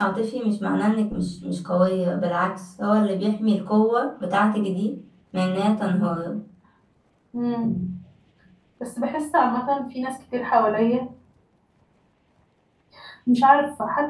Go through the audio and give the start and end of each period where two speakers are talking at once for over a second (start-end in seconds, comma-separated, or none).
none